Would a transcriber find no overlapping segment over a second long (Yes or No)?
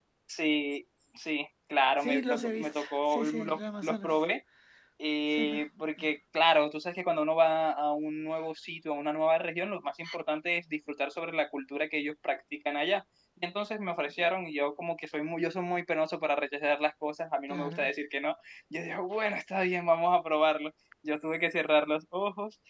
No